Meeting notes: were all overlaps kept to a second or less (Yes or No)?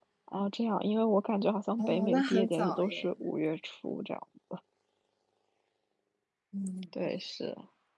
No